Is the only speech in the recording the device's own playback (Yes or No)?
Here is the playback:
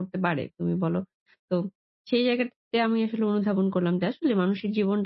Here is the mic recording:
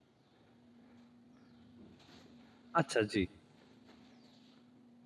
No